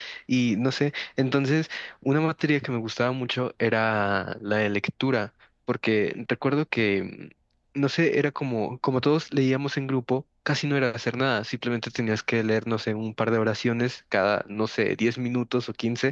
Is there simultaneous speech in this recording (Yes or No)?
No